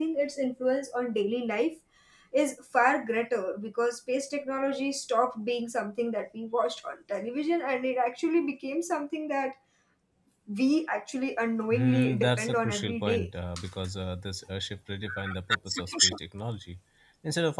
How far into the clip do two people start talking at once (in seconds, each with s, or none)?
11.7 s